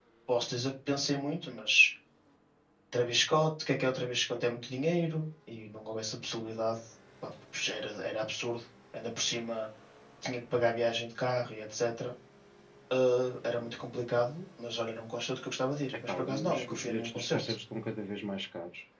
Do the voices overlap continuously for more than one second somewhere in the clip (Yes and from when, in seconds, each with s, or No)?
Yes, from 15.9 s